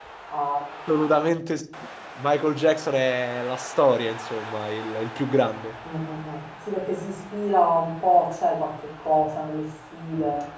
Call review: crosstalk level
none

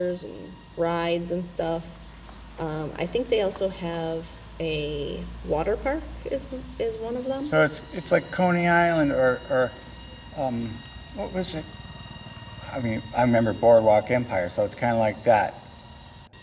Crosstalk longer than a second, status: none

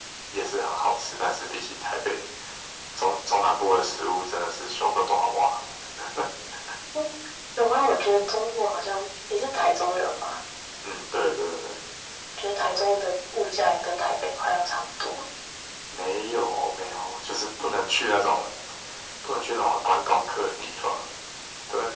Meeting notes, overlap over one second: none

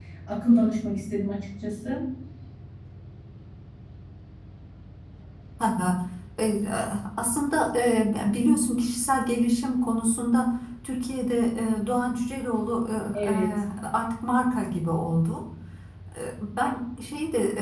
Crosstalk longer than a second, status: none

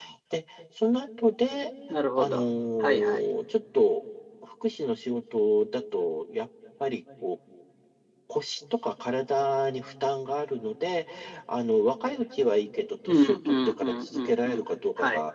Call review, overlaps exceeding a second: present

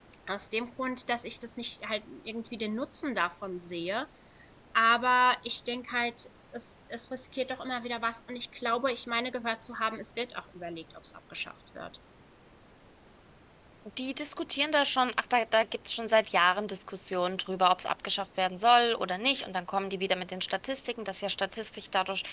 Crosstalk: none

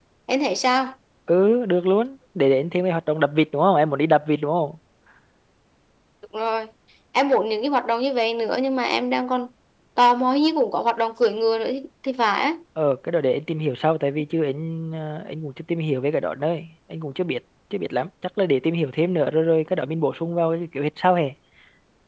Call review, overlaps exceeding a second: none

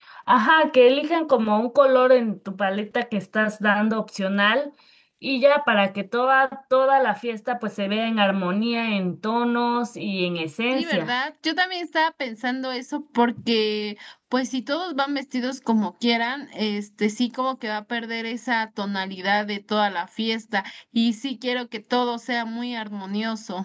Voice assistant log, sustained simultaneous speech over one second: none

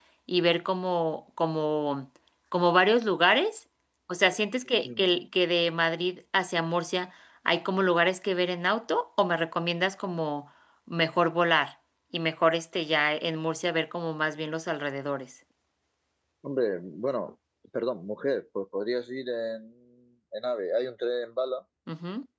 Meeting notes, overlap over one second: none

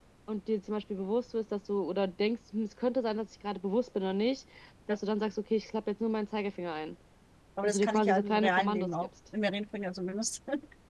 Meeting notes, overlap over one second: present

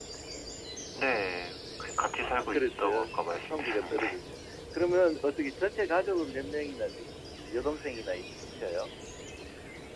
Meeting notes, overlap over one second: present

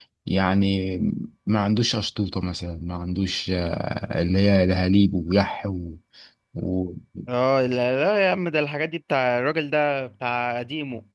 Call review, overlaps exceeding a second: none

